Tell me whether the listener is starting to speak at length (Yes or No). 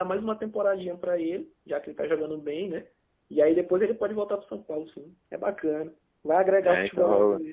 Yes